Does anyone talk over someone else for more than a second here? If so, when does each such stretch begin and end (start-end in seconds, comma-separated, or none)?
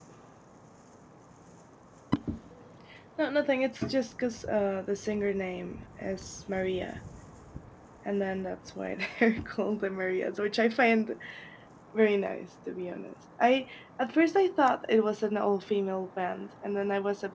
none